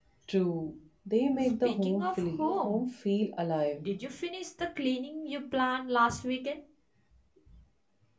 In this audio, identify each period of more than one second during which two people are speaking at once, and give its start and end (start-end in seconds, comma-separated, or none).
1.4-2.8